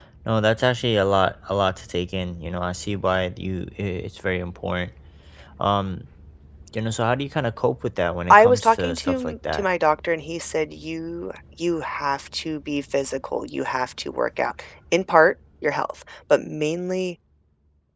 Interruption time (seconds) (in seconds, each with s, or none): 8.3 s